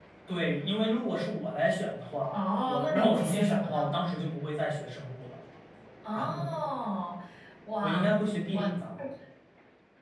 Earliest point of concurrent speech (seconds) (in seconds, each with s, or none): 2.3 s